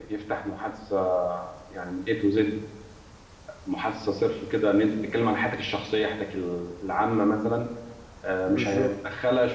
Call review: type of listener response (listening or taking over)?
listening